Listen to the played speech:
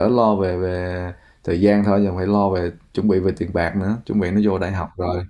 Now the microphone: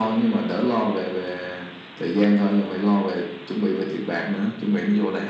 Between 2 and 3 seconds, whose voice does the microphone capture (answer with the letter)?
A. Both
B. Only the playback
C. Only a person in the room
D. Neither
B